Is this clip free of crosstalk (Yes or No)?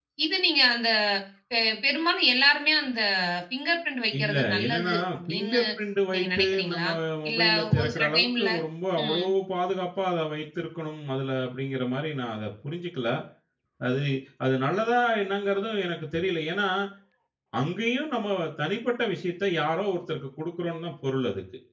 No